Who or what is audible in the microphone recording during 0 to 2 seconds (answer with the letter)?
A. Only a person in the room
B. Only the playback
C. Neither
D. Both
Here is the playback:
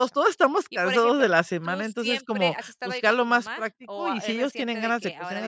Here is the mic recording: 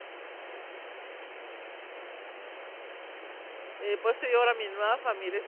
C